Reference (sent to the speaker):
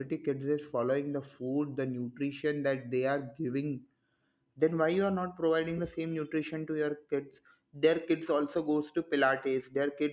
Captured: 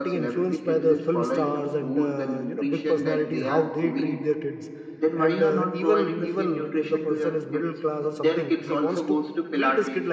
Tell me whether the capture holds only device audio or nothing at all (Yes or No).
No